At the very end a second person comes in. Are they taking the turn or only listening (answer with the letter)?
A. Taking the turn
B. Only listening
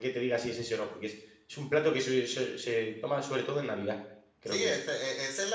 A